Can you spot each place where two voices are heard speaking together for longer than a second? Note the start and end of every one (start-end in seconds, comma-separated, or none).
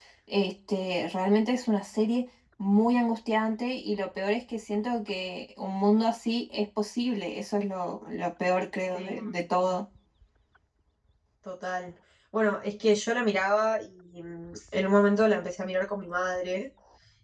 none